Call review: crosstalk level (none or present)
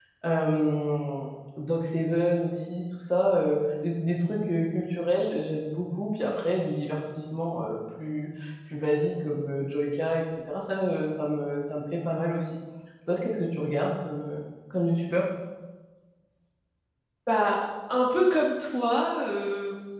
none